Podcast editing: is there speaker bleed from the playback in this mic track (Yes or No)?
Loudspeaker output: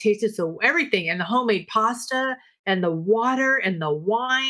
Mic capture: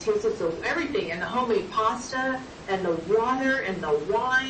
Yes